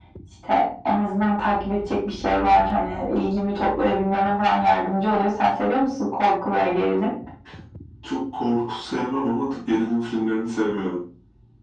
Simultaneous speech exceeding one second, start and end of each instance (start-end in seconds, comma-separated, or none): none